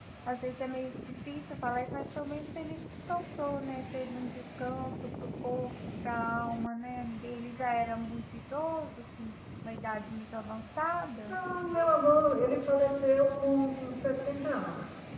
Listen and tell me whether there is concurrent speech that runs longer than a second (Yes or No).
No